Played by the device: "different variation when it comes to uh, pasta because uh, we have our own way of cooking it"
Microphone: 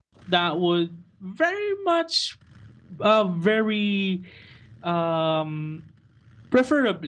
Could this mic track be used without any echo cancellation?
Yes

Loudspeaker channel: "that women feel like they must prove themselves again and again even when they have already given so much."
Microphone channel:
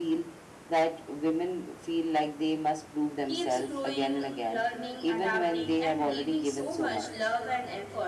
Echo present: Yes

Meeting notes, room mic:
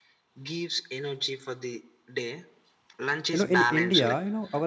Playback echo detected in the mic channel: Yes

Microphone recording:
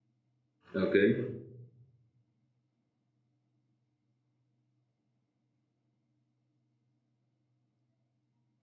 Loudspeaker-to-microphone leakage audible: No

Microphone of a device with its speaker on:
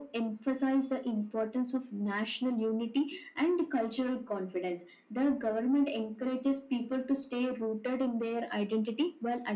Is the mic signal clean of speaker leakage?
No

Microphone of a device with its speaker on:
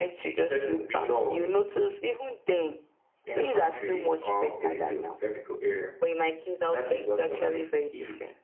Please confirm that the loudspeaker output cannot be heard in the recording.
No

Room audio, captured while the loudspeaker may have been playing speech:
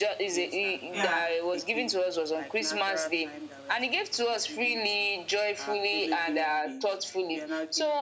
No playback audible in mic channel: No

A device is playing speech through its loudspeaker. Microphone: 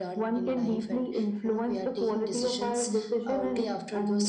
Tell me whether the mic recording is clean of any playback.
No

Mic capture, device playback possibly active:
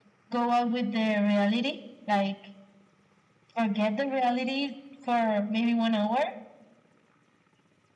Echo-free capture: No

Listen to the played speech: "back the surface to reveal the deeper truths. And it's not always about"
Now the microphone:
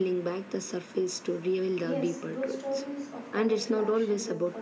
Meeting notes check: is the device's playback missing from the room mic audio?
No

